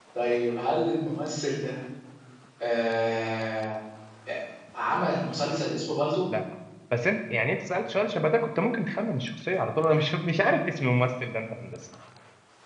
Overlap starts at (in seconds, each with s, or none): none